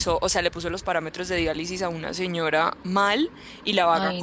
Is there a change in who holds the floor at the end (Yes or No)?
No